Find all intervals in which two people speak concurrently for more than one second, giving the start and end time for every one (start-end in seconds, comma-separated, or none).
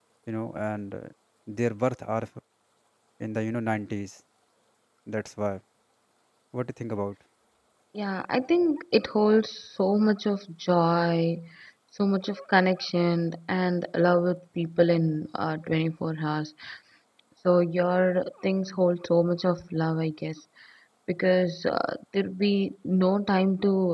none